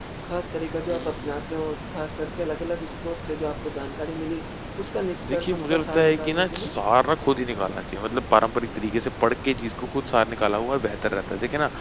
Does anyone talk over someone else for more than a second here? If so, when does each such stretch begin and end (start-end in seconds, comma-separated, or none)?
5.3-6.7